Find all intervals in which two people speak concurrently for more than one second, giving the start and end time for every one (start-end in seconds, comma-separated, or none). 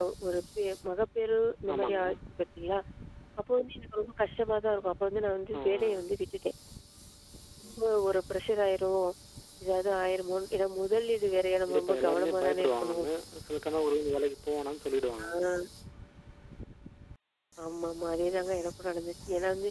11.7-13.1